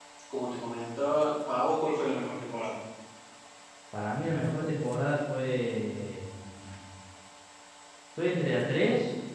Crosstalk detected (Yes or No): No